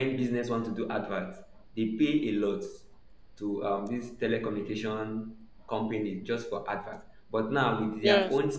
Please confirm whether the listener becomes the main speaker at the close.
No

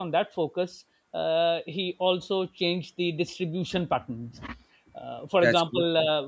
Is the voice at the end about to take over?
No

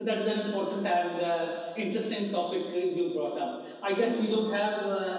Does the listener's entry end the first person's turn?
No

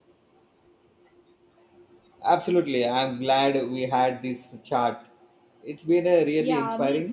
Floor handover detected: Yes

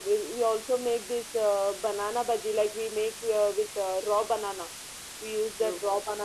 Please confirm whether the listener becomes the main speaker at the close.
No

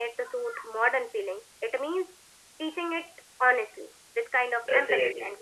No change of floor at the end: Yes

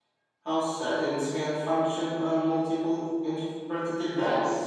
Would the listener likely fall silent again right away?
No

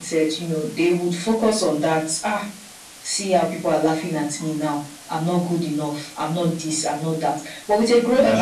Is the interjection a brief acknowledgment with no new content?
Yes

